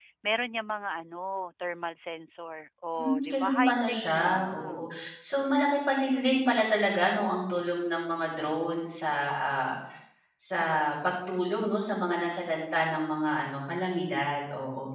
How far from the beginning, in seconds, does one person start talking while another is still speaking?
3.0 s

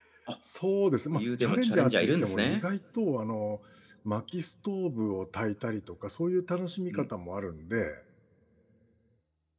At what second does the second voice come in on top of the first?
1.1 s

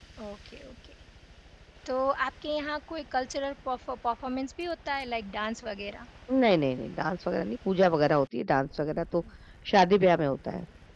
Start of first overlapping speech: none

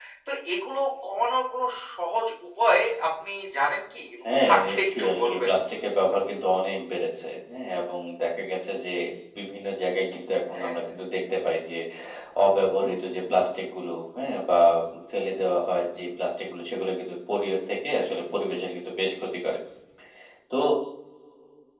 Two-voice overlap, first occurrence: 4.3 s

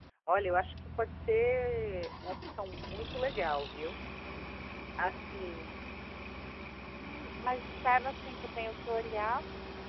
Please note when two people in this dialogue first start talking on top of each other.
none

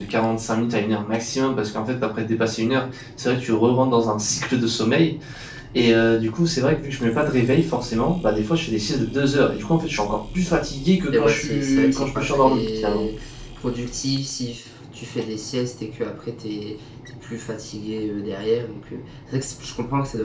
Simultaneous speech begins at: 11.1 s

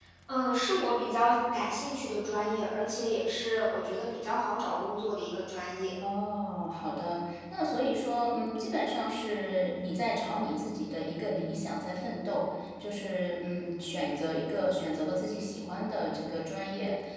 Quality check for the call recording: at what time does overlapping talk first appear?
none

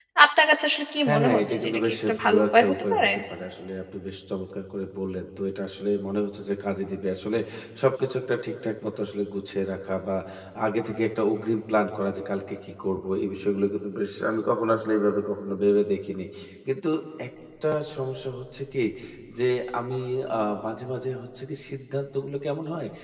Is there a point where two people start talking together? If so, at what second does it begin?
1.1 s

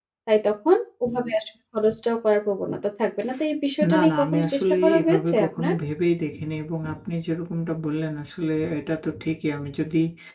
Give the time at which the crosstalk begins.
3.9 s

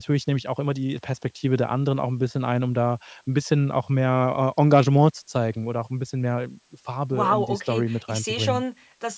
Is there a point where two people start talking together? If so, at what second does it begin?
7.1 s

